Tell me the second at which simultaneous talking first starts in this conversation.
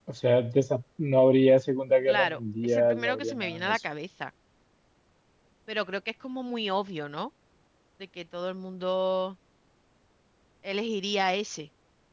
2 s

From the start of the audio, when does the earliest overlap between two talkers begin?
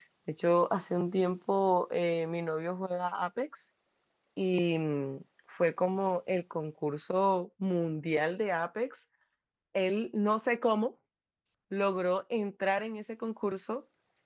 none

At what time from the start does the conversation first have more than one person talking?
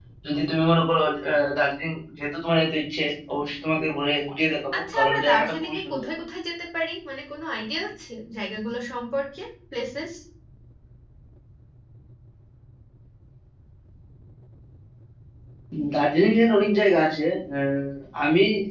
5 s

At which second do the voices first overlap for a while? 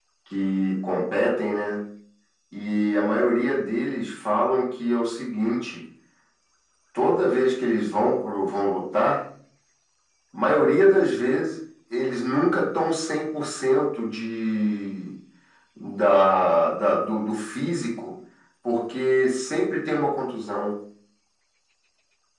none

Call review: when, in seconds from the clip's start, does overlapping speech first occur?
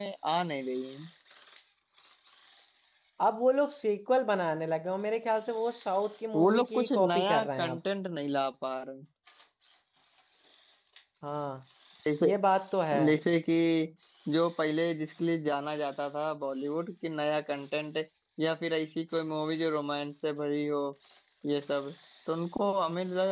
6 s

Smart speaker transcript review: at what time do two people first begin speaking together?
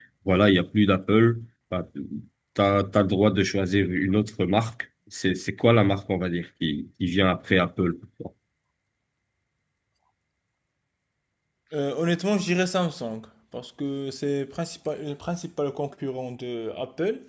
none

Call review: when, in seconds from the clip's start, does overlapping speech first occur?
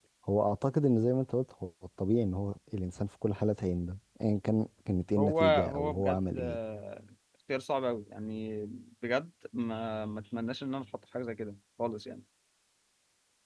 5 s

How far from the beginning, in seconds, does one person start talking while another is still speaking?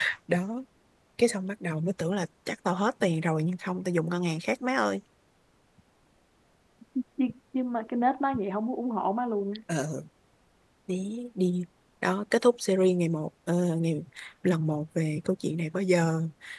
none

